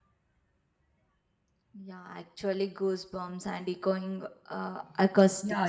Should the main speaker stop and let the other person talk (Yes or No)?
Yes